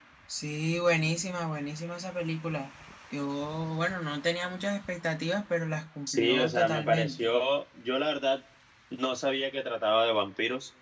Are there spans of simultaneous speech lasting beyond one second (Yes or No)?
Yes